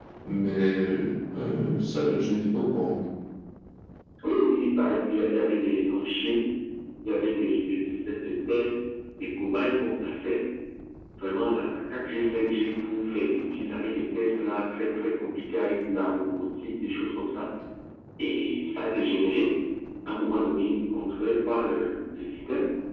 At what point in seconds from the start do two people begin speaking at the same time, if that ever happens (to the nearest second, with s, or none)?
none